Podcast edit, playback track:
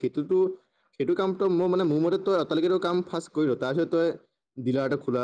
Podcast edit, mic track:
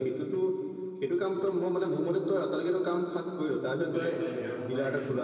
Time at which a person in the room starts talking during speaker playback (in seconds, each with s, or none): 3.9 s